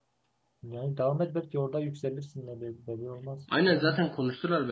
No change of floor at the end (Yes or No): No